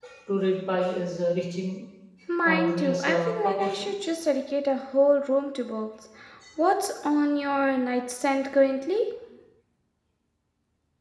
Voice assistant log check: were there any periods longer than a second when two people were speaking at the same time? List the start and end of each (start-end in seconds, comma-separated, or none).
2.5-3.9